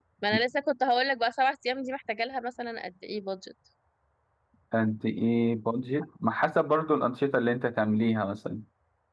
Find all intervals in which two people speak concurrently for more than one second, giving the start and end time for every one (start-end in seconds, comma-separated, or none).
none